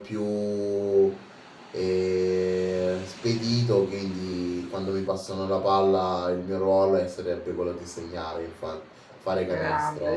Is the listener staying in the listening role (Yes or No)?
No